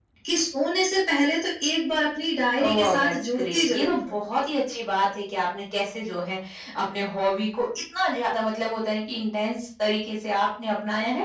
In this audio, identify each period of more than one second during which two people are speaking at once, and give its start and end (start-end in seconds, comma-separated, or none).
2.6-4.2